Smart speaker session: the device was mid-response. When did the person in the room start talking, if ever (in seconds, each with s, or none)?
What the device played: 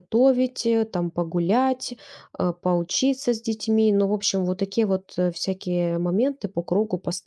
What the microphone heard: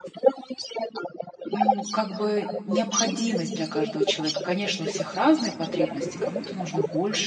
1.4 s